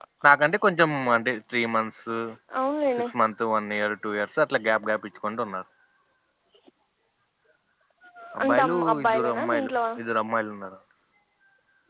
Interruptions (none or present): present